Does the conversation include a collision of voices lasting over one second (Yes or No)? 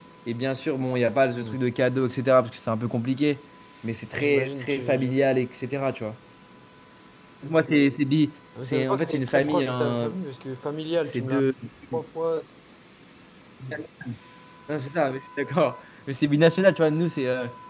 Yes